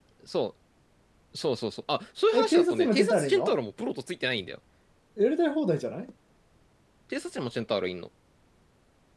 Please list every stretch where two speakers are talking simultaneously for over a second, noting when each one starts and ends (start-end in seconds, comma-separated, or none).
2.3-3.6